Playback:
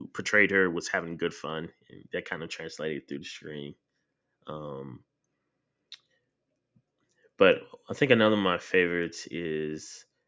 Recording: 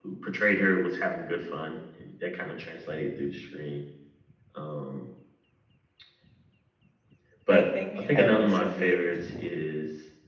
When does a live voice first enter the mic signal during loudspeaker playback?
7.5 s

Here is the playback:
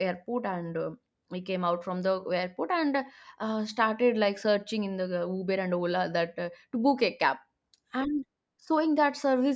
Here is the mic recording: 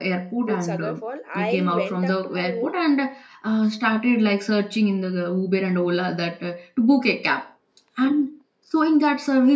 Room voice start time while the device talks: 0.5 s

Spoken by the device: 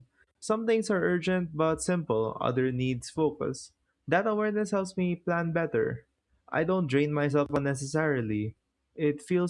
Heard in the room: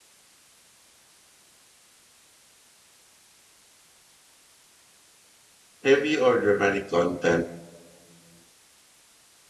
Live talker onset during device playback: 5.8 s

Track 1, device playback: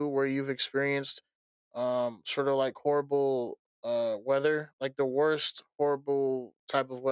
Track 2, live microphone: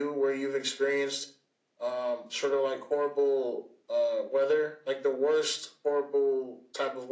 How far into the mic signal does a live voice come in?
none

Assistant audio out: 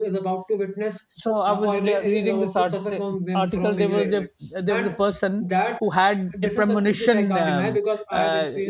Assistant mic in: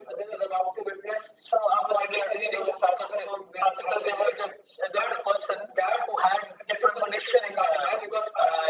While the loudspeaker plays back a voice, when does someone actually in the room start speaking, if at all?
none

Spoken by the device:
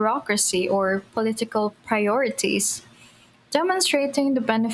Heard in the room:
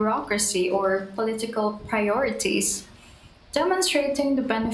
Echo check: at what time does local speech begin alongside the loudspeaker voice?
none

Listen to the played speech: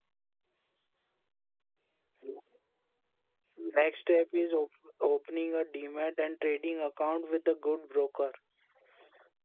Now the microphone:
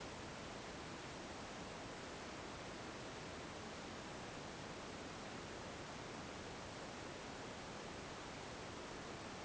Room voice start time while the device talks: none

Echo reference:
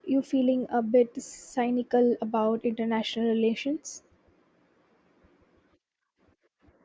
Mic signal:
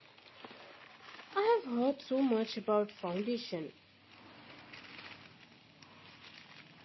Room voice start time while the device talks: 1.4 s

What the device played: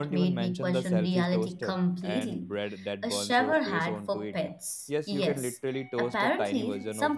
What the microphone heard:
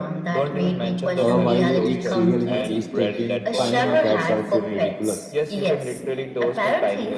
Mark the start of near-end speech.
1.2 s

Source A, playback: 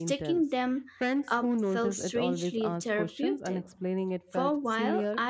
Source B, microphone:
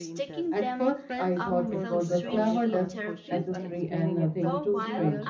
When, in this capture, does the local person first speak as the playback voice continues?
0.5 s

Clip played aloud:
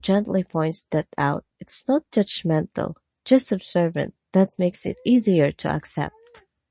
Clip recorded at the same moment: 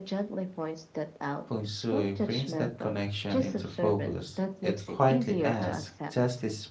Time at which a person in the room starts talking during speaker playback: 1.5 s

